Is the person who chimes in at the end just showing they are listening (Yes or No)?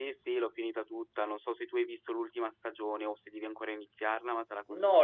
No